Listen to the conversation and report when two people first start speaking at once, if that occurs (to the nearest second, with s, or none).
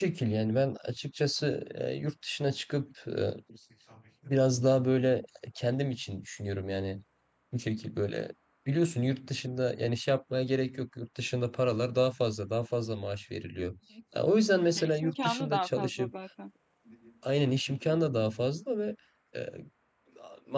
15 s